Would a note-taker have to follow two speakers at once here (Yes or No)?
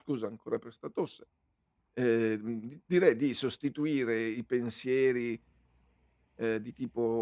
No